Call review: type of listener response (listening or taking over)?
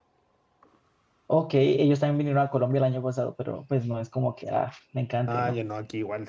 taking over